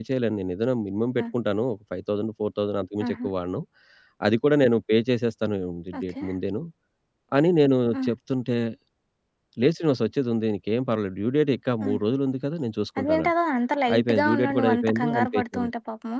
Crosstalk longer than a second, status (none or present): present